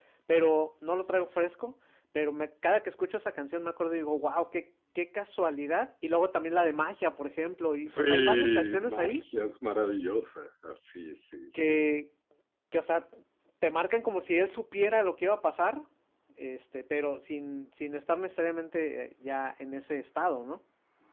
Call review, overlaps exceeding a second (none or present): present